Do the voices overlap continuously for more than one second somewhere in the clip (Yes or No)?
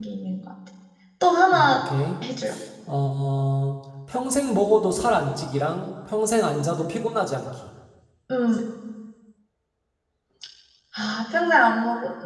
No